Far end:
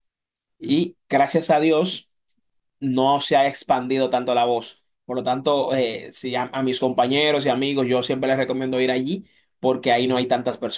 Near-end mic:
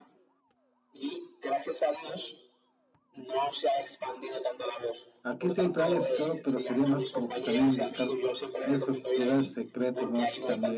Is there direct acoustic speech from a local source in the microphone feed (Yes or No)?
Yes